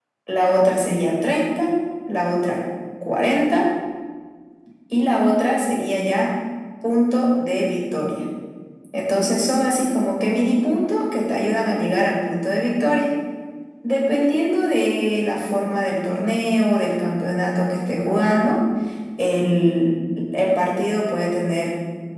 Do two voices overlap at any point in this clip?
No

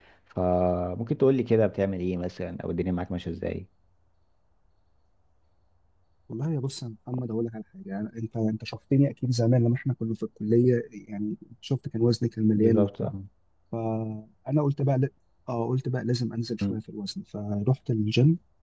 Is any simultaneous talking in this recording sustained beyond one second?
No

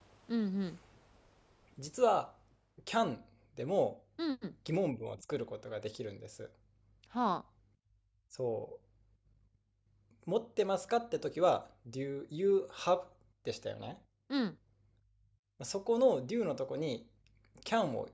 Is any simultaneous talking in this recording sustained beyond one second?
No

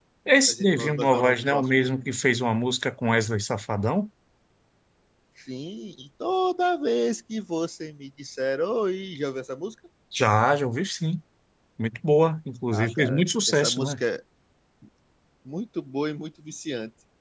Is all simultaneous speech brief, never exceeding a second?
No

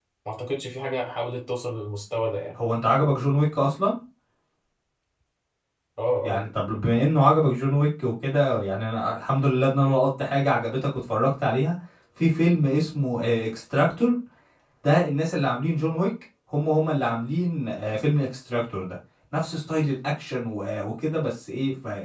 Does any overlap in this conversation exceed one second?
No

